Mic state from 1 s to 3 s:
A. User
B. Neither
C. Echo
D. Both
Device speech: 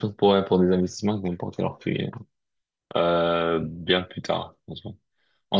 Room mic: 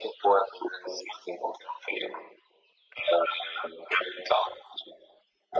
C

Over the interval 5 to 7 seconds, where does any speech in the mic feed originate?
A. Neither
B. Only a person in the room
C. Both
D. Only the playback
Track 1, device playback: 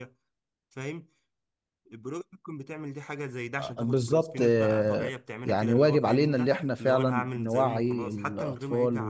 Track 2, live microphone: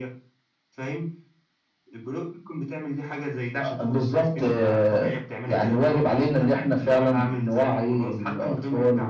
D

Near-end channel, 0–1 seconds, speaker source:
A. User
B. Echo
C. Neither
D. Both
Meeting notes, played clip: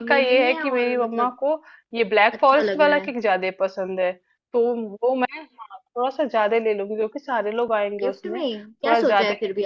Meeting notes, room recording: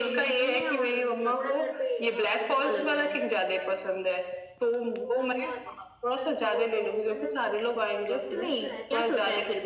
B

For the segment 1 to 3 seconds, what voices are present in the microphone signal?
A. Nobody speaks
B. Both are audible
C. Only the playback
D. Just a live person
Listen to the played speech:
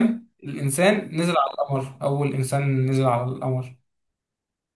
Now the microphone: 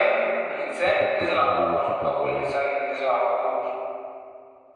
B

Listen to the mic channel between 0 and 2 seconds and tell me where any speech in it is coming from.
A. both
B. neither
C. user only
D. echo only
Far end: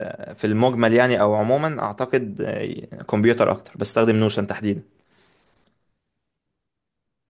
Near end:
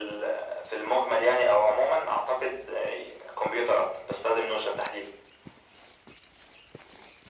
D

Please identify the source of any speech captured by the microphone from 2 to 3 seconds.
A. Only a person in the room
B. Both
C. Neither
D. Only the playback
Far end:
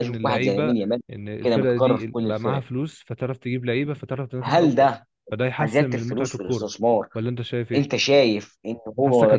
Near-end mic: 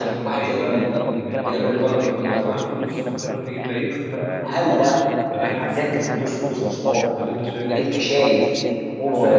B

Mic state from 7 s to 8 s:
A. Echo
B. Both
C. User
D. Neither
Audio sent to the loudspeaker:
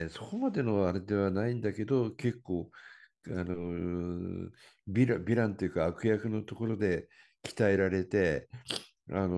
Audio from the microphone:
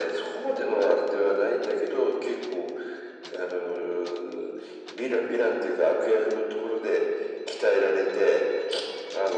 A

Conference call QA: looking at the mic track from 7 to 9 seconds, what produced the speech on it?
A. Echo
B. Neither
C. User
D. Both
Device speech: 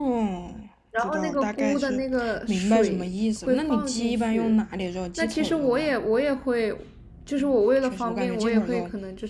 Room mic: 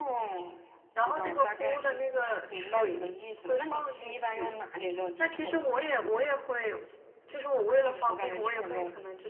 A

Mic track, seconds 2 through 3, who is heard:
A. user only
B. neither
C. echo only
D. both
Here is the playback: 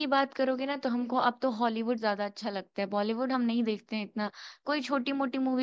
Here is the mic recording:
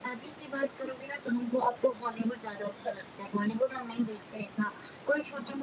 C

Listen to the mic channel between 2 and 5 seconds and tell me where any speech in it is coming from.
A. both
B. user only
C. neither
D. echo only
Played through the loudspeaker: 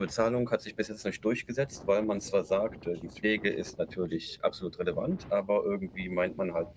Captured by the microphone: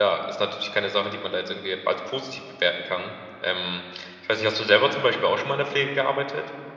B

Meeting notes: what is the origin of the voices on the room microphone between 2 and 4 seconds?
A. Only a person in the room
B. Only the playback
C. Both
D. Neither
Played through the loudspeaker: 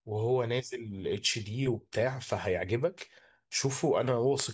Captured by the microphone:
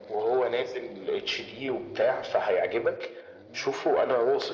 B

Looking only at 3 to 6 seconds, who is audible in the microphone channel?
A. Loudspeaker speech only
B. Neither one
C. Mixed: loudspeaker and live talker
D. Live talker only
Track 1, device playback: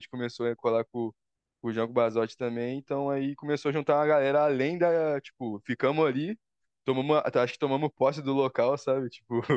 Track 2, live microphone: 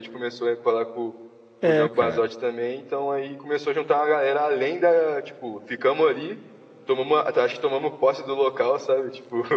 A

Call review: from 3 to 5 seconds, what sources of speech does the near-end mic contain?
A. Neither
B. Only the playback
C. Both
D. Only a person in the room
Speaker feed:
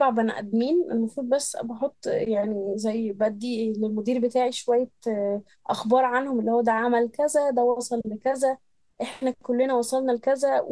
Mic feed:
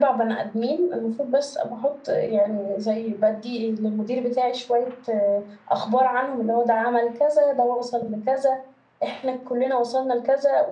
B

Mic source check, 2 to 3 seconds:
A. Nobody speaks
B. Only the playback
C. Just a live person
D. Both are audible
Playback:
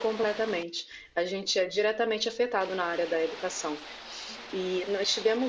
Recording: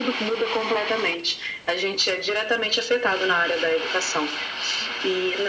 B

